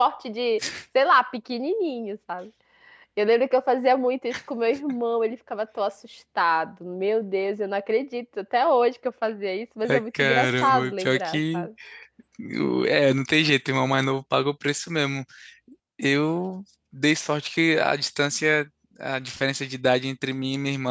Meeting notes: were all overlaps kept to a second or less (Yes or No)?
No